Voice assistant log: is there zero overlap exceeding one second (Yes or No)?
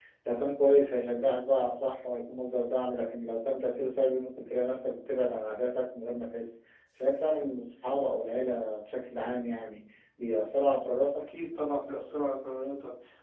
Yes